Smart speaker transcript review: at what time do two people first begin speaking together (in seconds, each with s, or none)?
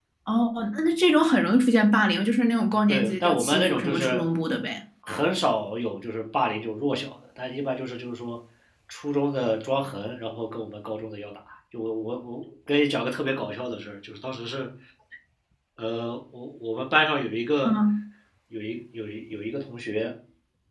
2.7 s